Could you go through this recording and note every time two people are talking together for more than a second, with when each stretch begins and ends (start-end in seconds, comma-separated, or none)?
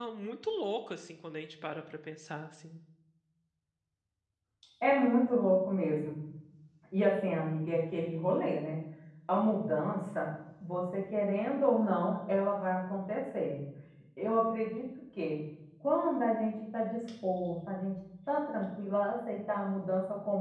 none